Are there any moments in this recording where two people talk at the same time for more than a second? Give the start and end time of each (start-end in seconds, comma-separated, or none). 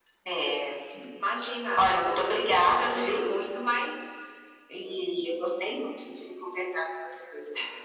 1.8-3.3